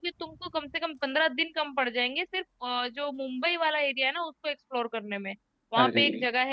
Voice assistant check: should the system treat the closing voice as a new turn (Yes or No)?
No